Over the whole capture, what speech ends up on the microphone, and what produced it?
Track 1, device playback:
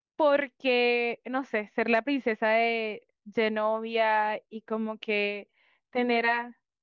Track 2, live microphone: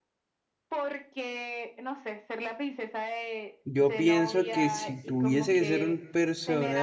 both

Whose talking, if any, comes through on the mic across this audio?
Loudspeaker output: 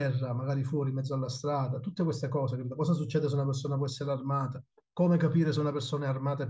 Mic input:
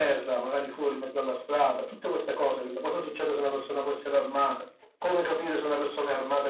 echo only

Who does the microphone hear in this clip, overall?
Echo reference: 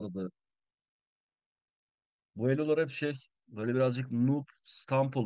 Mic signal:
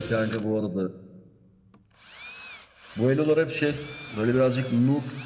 echo only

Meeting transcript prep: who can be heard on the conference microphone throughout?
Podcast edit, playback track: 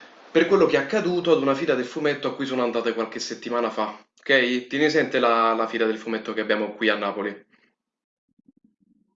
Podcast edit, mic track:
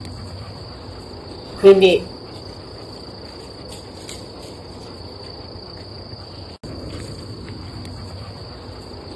user only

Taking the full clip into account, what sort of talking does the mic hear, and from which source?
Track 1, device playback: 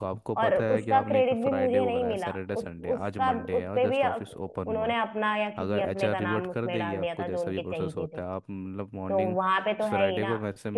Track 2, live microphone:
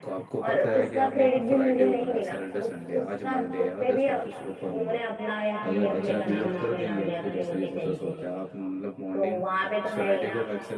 echo only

